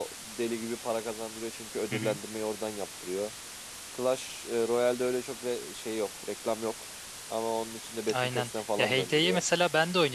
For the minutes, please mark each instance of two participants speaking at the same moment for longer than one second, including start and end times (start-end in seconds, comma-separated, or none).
8.1-9.4